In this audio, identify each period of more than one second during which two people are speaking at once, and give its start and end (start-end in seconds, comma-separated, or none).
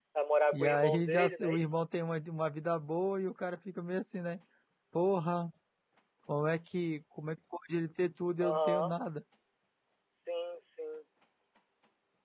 0.5-1.8